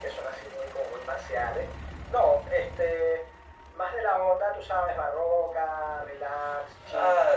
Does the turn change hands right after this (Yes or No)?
No